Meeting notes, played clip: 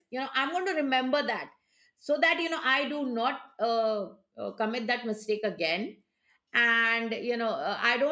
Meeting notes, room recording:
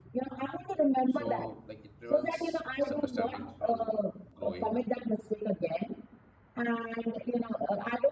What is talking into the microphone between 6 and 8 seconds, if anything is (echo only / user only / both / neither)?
echo only